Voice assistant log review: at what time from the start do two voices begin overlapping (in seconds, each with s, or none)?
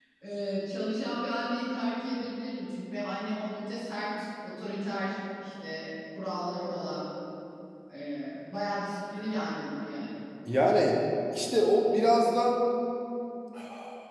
none